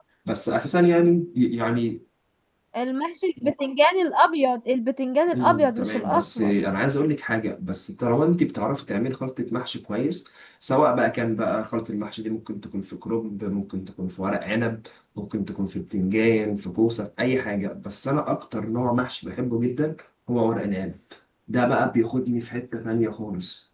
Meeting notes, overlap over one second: present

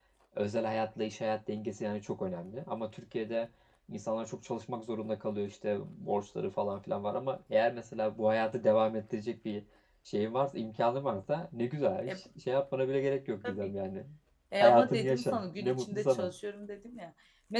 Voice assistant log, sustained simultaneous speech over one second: present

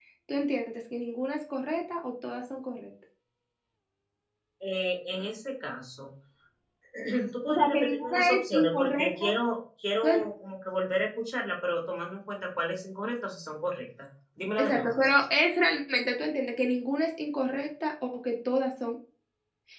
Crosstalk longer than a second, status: present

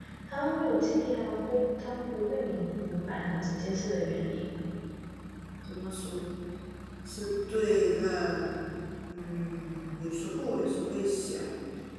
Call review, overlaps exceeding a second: none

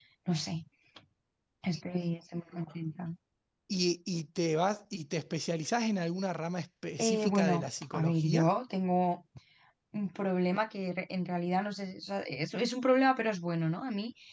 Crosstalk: present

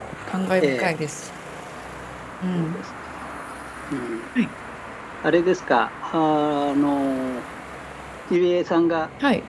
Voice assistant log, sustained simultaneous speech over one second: none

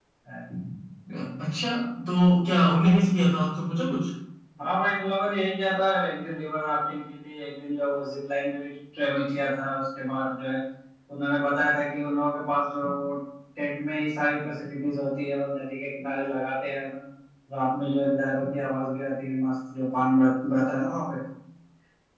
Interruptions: none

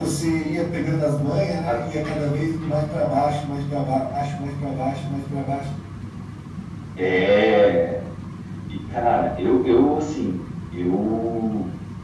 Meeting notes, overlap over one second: none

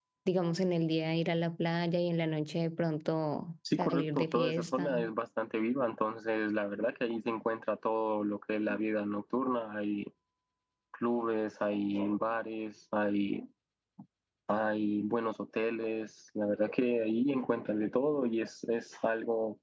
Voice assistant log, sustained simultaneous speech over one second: present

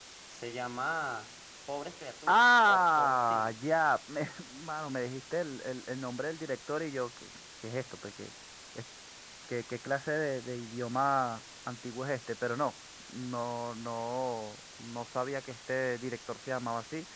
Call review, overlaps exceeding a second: present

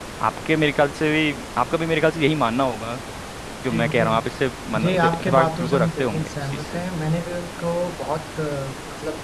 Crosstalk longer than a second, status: present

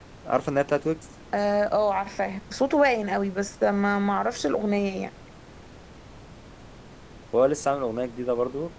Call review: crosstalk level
none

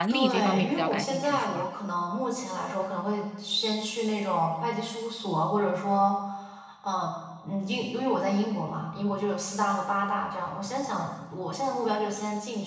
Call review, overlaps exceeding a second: present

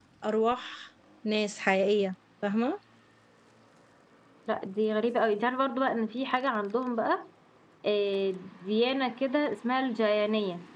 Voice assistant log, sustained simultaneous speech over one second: none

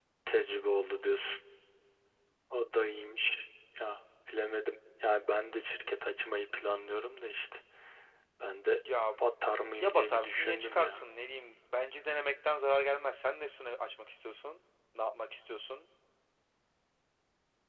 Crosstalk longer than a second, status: present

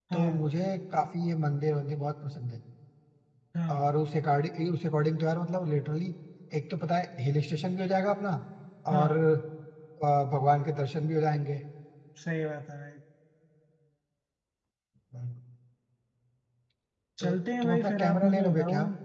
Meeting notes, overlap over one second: present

